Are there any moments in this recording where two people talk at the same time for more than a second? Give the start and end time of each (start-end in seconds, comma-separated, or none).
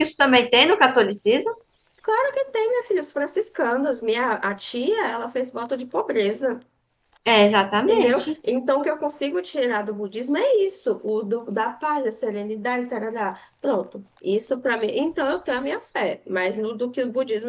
none